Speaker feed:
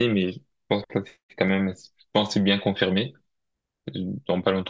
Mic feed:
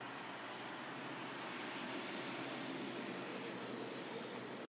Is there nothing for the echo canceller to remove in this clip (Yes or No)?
Yes